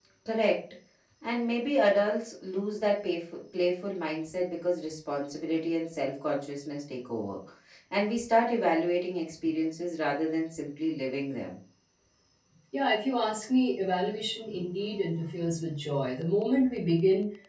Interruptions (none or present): none